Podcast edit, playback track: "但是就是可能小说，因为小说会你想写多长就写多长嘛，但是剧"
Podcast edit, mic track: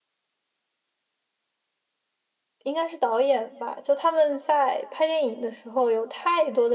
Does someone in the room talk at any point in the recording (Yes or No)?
Yes